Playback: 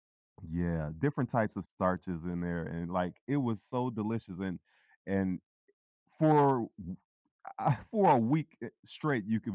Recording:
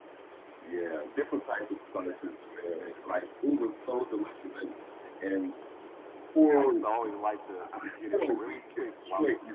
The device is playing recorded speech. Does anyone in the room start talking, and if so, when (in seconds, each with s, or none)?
6.6 s